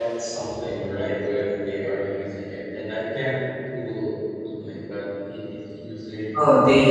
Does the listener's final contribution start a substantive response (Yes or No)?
Yes